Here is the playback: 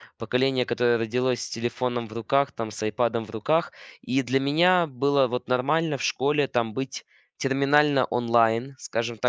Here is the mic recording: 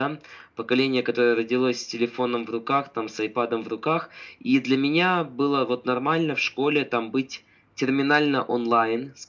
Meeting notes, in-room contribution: none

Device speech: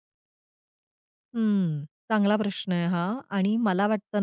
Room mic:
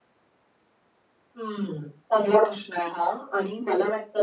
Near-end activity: none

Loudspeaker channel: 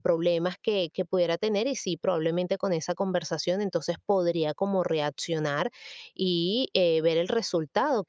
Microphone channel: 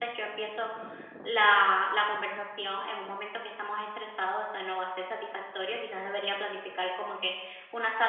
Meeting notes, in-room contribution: present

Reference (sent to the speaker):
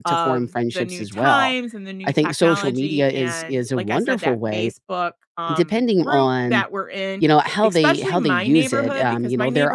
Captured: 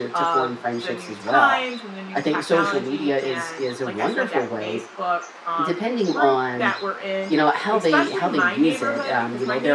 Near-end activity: none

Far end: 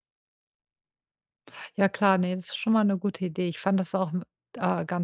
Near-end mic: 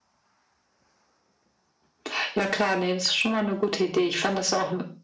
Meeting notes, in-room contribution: none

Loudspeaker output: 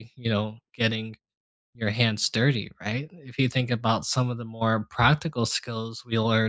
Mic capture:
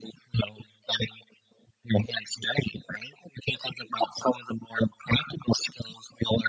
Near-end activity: none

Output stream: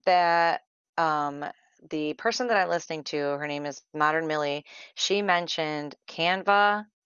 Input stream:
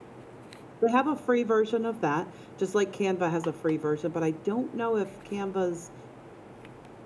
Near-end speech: present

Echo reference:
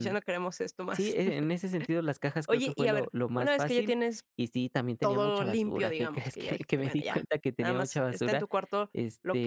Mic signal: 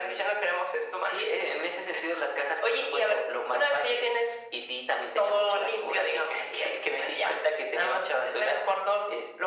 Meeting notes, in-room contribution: none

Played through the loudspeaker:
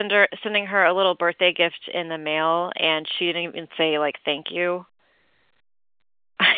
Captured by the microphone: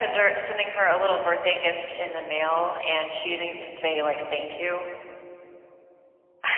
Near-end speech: none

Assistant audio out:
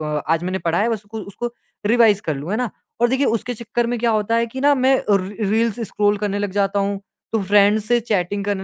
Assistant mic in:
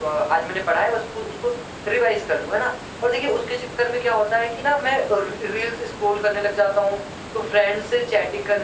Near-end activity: none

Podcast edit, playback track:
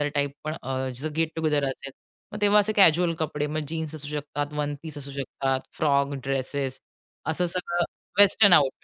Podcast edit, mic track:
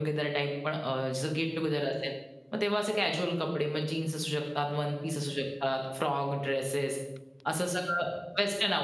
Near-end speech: none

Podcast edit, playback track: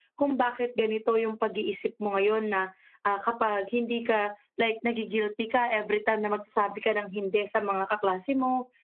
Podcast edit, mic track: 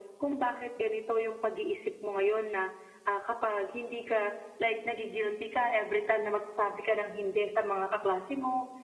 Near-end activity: none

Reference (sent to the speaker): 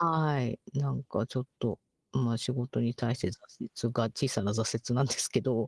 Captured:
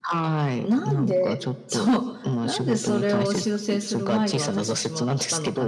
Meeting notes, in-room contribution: present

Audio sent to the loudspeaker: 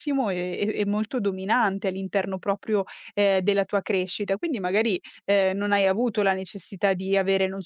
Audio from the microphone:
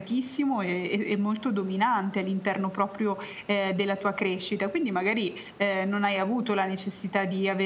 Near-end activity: none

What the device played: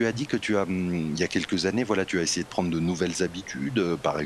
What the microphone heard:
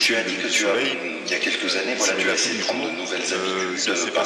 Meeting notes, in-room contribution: present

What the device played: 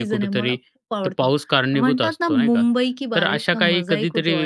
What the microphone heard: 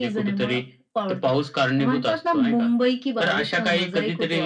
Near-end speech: none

